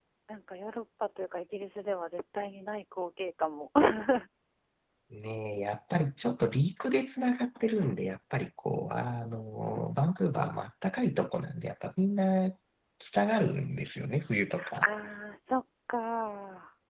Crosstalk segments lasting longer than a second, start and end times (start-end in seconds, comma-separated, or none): none